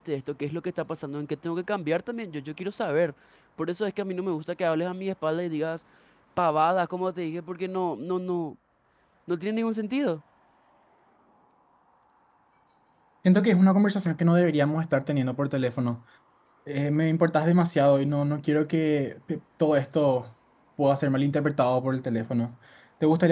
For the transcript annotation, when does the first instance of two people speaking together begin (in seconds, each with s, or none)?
none